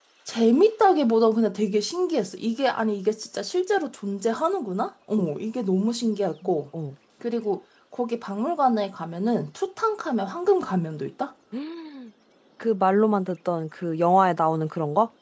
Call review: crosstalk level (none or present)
none